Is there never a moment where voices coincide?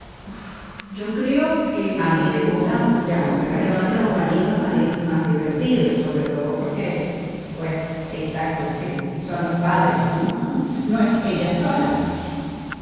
No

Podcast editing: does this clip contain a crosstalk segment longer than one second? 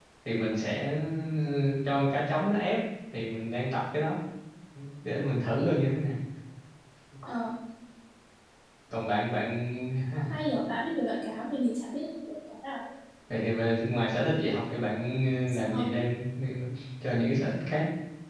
No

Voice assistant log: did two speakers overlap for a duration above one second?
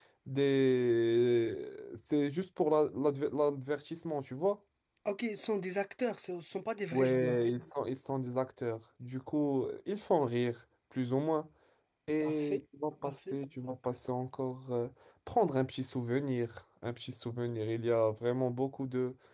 No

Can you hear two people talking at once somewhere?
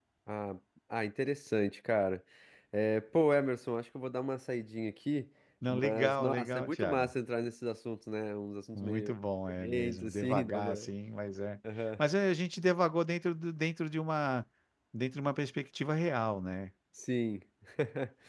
Yes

